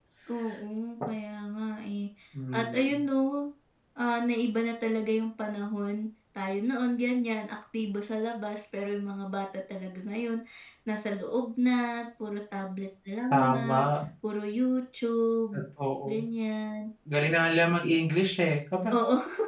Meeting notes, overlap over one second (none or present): none